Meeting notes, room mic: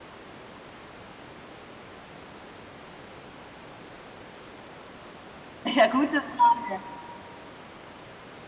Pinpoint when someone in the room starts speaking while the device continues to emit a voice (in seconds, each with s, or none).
5.6 s